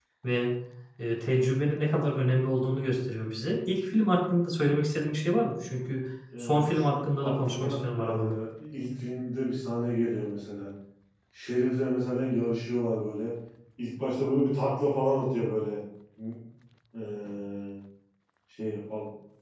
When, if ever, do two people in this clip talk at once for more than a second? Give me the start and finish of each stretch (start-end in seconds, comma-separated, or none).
6.4-8.4